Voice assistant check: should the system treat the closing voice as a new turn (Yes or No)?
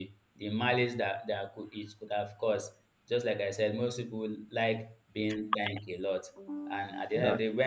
No